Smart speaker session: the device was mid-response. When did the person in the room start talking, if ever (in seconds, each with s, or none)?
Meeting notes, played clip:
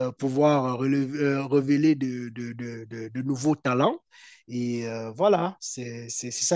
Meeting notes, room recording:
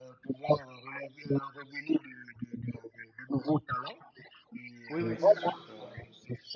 4.9 s